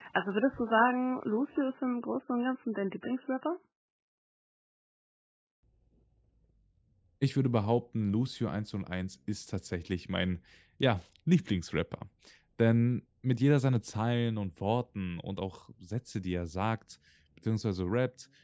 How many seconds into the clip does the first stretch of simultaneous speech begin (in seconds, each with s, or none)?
none